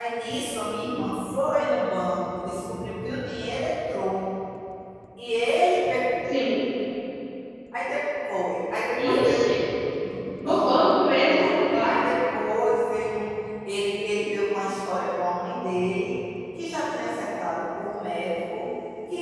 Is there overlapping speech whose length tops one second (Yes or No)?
Yes